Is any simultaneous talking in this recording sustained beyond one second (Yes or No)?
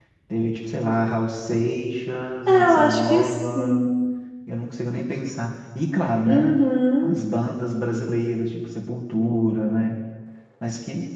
Yes